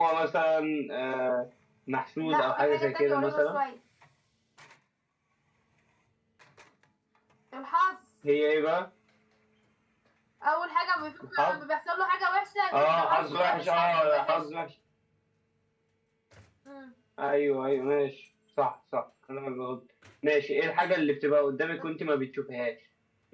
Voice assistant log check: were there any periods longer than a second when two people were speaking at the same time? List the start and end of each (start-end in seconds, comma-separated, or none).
2.2-3.6, 12.7-14.4